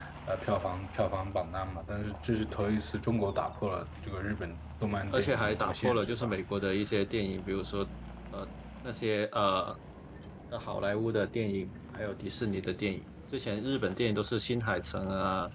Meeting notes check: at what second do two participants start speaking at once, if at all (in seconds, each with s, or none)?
4.8 s